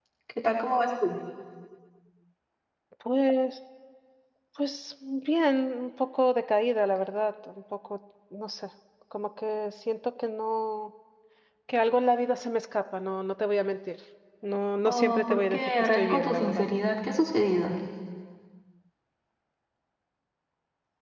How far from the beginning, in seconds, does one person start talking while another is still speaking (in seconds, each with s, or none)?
14.8 s